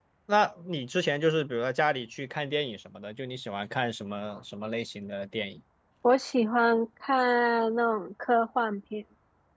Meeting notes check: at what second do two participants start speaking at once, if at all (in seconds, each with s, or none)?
none